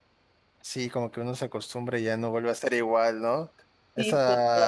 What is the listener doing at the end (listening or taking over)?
listening